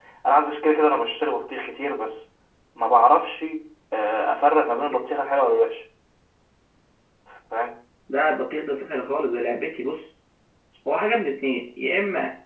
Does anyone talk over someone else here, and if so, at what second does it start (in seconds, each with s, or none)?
none